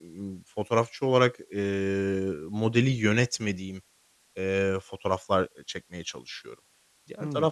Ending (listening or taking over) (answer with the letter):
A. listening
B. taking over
A